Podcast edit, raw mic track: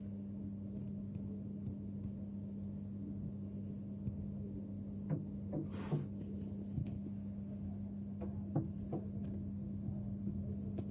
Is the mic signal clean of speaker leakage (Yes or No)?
Yes